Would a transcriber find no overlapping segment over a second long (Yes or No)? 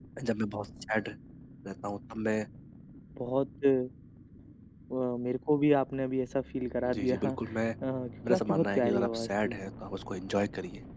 No